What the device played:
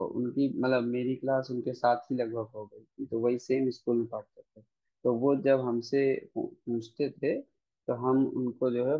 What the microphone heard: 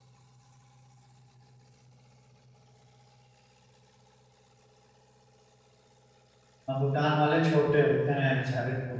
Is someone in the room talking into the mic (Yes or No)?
Yes